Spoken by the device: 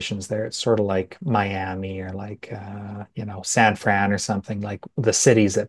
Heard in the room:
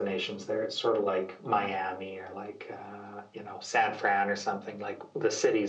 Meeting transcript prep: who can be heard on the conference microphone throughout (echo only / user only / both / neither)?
echo only